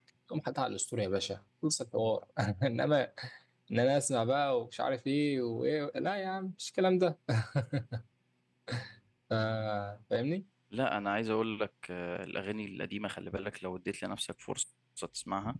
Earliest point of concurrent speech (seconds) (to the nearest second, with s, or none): none